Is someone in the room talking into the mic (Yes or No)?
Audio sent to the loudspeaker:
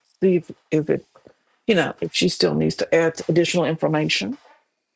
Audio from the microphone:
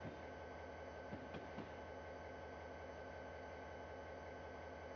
No